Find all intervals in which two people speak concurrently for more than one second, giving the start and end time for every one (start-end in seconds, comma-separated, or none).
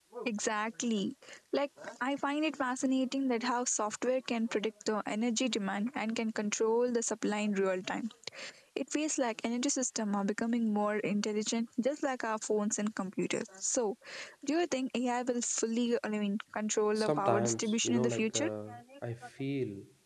16.9-18.5